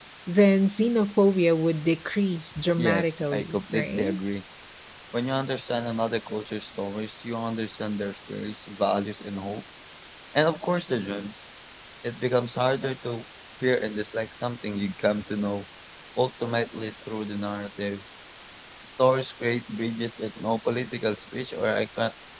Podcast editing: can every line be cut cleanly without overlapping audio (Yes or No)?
No